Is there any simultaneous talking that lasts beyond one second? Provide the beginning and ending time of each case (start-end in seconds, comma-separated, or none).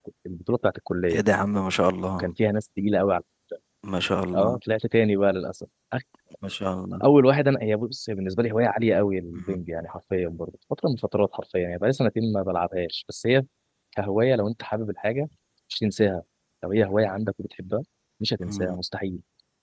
none